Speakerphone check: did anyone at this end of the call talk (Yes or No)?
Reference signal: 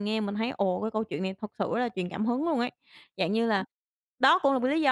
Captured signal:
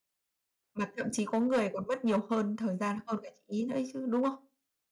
Yes